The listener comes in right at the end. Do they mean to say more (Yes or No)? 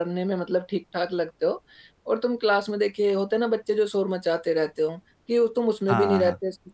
No